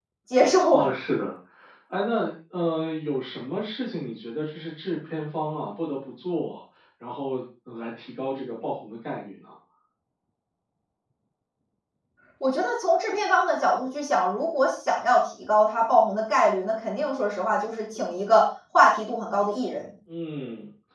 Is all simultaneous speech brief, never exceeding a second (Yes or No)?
Yes